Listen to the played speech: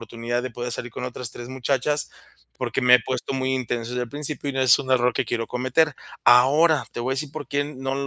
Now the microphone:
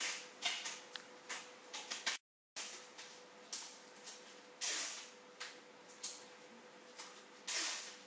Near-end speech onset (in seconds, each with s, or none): none